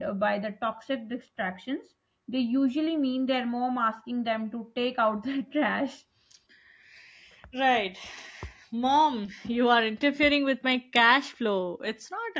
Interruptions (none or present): none